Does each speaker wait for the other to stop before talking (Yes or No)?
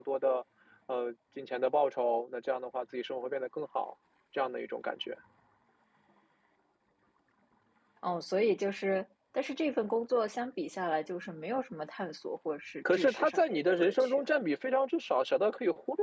No